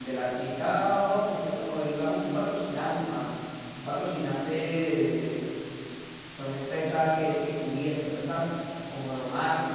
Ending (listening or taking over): listening